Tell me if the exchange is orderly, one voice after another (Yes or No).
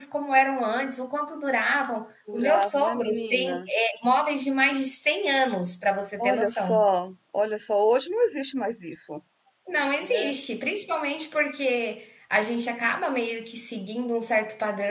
No